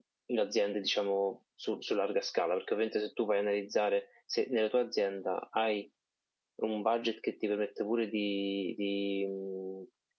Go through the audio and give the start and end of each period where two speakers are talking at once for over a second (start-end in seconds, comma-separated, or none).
none